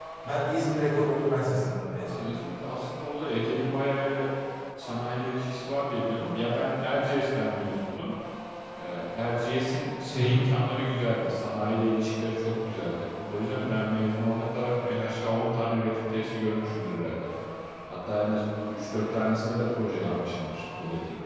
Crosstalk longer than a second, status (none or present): none